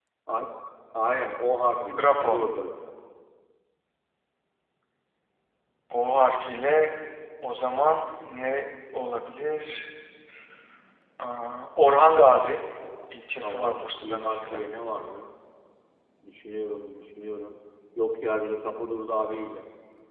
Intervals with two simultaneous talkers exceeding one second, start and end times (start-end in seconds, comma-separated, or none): 13.4-14.7